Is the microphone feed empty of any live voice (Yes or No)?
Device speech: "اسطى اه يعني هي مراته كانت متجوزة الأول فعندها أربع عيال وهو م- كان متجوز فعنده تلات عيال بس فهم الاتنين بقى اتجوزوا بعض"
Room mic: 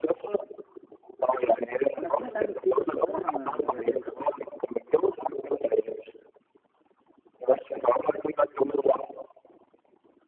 No